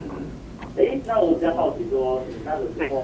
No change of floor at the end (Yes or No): Yes